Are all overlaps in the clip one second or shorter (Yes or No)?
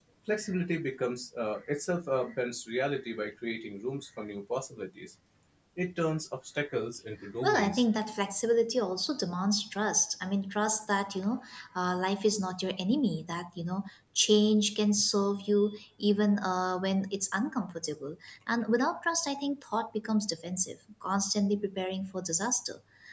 Yes